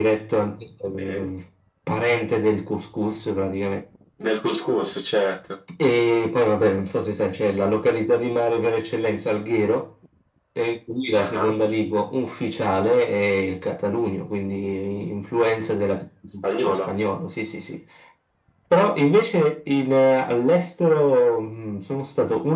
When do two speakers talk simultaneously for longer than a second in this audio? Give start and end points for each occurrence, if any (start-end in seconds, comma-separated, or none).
none